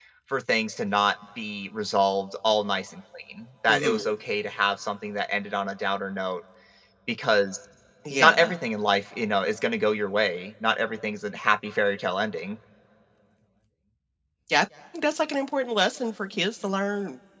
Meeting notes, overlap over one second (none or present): none